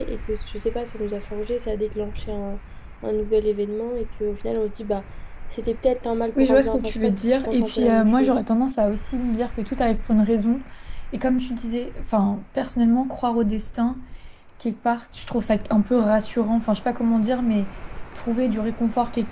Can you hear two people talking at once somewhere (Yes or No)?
Yes